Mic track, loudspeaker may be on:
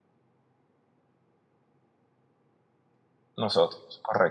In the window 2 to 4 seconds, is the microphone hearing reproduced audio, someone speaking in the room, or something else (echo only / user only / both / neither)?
user only